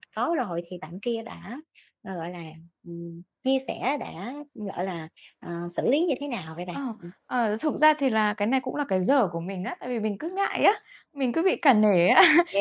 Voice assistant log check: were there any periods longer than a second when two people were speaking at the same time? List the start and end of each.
none

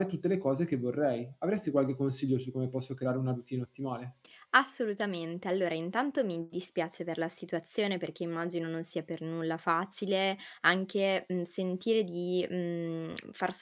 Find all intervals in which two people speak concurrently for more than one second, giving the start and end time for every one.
none

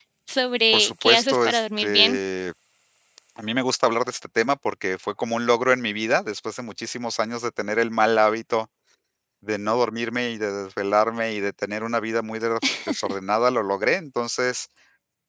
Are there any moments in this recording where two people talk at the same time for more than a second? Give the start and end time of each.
0.7-2.2

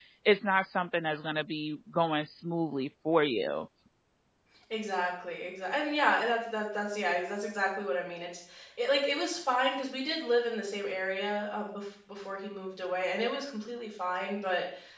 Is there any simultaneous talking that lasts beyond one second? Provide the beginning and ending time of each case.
none

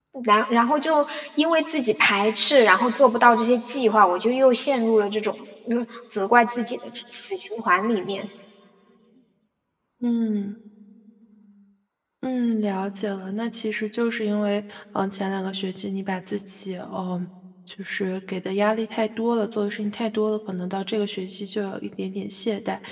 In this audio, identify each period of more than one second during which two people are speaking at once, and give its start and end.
none

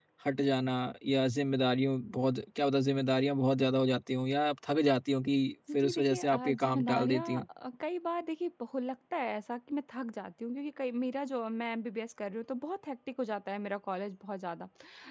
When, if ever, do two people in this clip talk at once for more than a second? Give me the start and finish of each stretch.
5.8-7.4

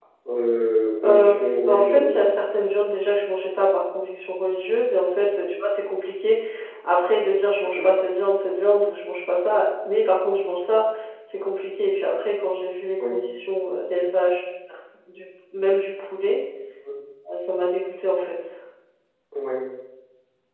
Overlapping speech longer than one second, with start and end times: 1.0-2.2

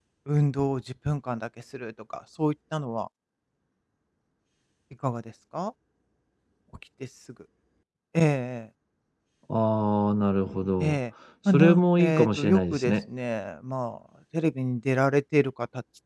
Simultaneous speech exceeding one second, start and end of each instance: 11.5-12.9

